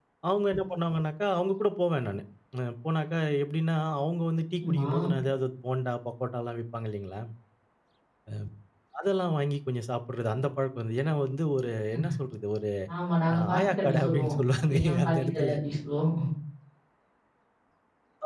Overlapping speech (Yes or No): Yes